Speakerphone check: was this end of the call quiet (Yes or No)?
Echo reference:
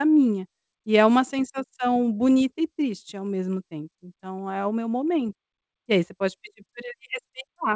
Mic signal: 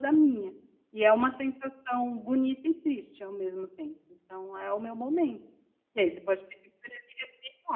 Yes